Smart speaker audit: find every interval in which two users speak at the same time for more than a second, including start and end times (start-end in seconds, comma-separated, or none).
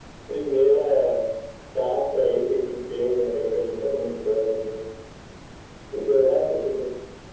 none